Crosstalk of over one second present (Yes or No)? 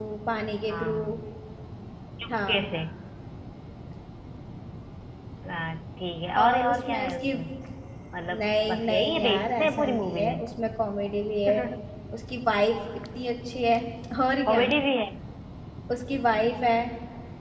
Yes